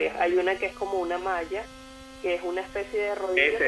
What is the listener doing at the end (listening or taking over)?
taking over